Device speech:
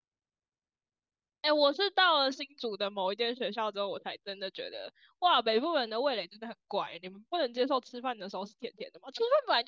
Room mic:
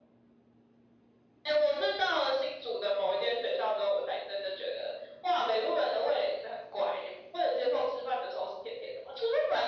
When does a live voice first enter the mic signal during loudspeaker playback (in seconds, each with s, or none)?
none